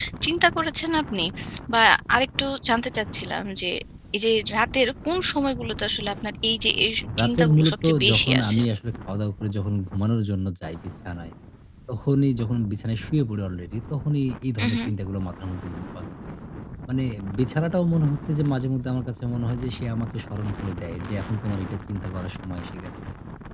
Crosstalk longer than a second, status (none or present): present